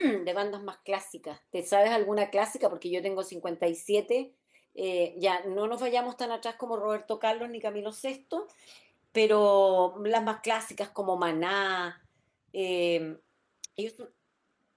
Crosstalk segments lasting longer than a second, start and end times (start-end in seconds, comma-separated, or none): none